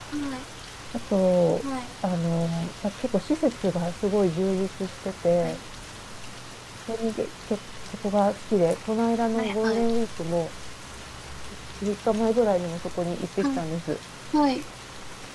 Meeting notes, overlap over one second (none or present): none